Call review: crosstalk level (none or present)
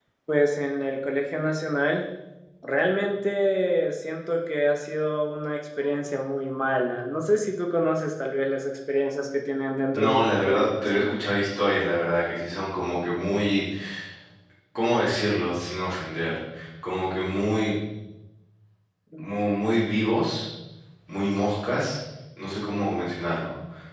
present